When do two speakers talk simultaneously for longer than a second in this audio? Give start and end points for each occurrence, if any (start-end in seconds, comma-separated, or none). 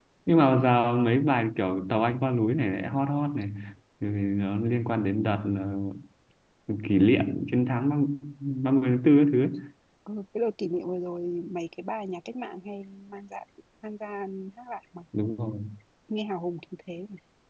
none